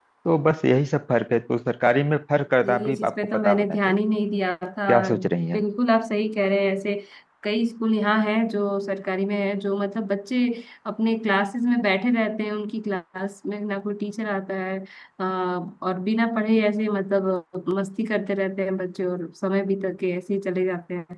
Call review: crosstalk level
present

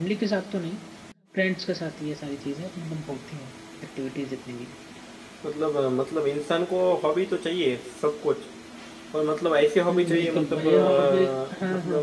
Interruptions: present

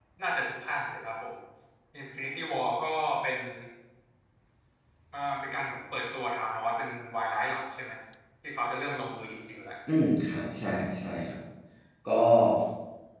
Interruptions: none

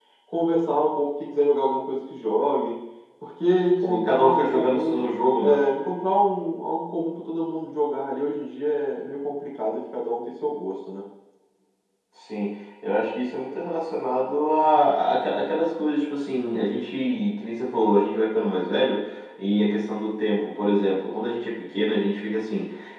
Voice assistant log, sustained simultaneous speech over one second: present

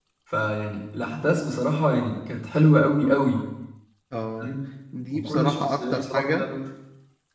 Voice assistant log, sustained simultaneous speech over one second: present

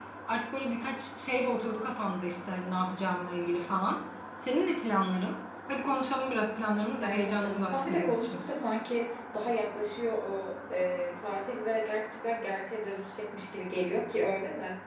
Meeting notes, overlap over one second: present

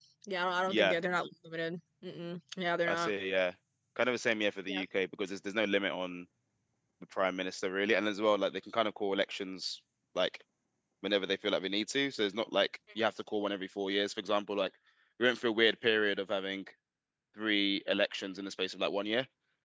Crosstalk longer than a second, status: none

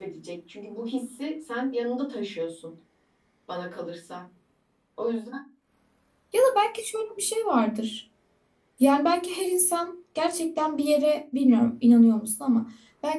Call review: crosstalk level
none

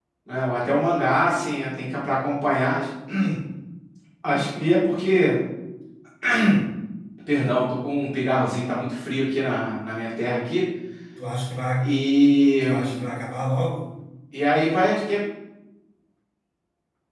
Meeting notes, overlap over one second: none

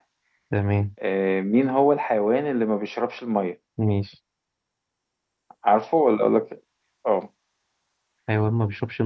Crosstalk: none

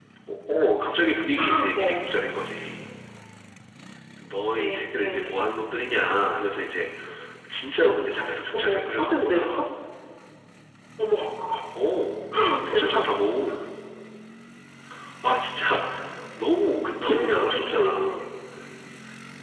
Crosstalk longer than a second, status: present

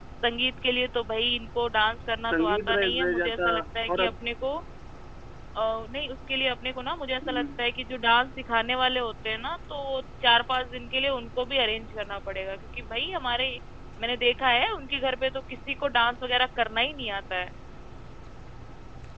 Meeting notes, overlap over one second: present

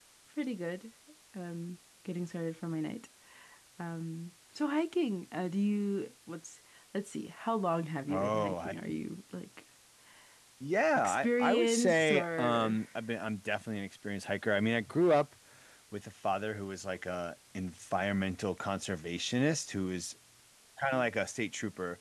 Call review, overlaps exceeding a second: present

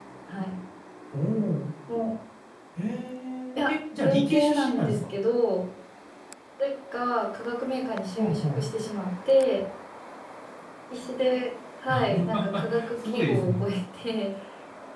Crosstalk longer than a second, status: present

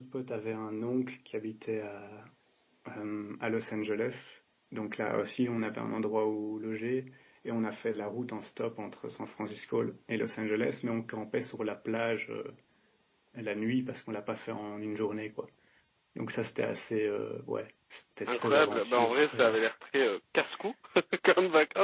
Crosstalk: present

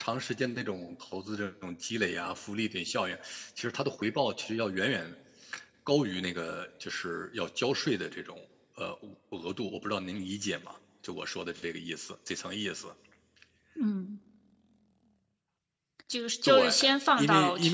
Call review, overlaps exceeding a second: none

